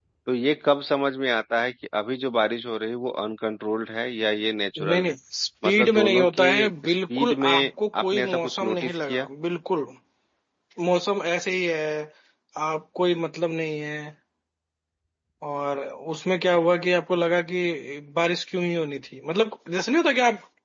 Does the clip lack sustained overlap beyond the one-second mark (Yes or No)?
No